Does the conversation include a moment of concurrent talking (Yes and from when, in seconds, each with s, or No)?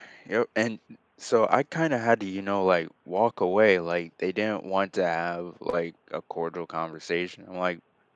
No